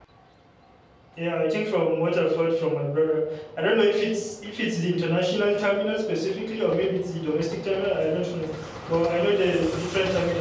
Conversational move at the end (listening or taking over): listening